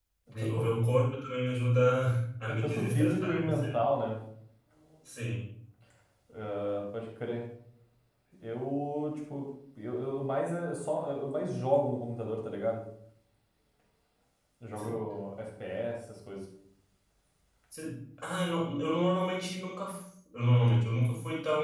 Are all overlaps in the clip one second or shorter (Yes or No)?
No